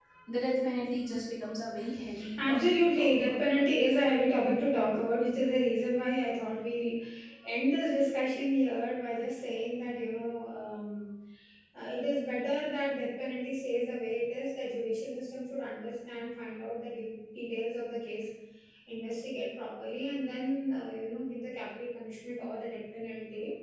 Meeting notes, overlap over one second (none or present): present